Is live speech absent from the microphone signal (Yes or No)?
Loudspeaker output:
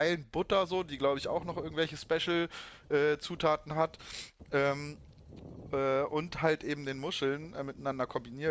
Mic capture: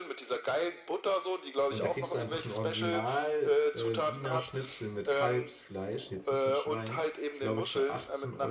No